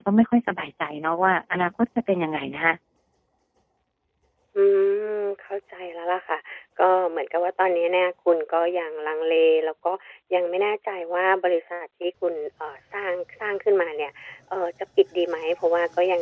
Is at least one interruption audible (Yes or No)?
No